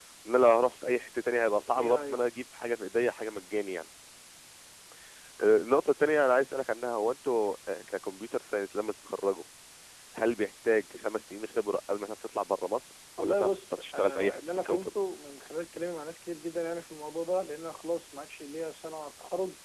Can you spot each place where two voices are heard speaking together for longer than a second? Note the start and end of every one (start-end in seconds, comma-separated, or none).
13.2-14.9